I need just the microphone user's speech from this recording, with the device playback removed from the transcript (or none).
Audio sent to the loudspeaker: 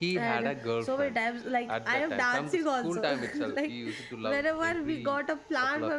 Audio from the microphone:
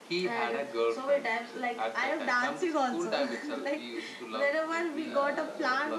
uh, like